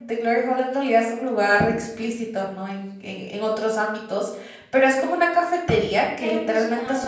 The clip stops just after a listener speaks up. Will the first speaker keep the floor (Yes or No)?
Yes